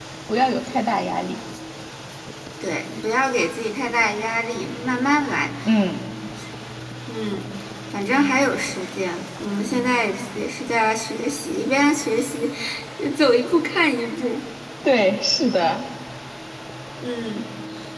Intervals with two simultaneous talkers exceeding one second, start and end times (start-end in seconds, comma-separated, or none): none